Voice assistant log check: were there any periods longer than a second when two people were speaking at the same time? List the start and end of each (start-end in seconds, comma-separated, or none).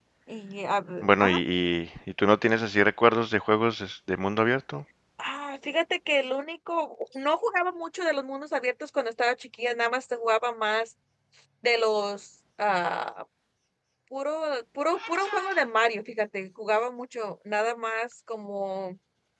none